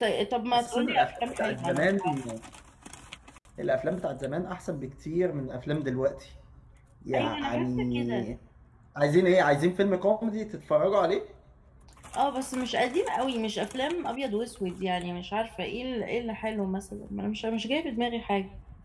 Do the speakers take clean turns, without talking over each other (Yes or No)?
No